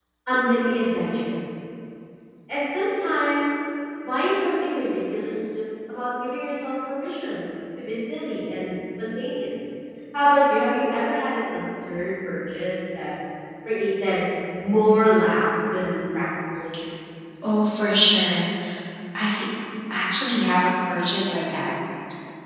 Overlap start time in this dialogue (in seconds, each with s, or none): none